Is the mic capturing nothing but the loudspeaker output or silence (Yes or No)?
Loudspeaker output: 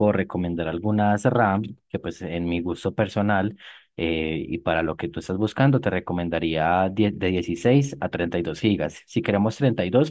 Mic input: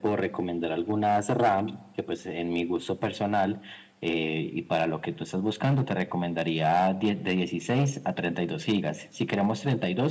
Yes